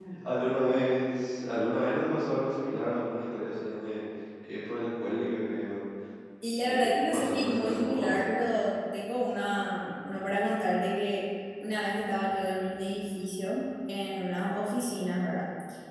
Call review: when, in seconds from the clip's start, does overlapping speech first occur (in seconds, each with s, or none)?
6.6 s